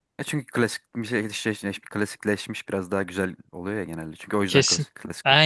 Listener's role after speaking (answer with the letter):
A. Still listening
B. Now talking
B